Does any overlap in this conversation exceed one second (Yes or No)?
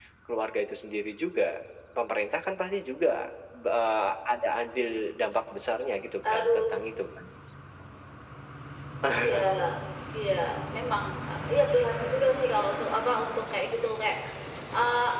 No